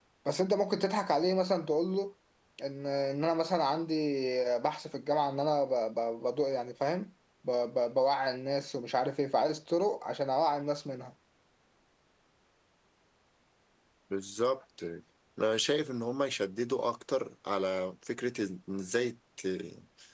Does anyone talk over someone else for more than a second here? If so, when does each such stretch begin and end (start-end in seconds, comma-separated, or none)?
none